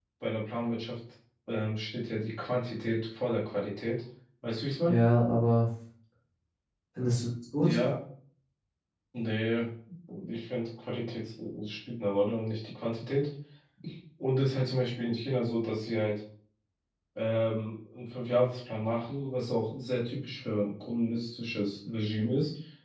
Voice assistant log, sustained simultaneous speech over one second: none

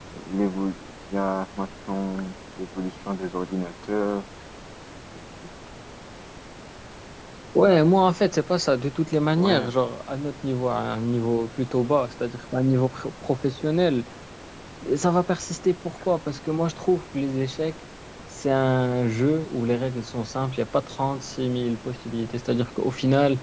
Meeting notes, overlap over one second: none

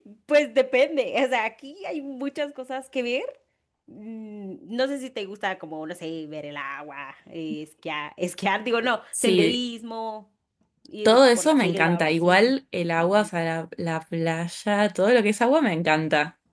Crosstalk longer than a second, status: present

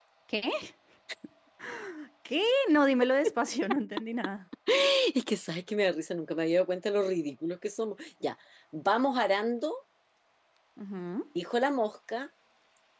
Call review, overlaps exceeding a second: none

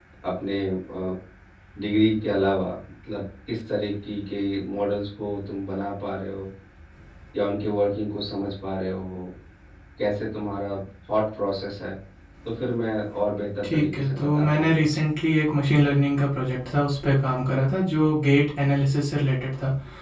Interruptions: present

